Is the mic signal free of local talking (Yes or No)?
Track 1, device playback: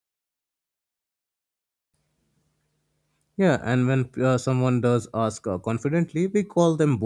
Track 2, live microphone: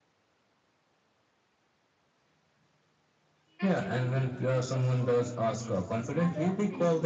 No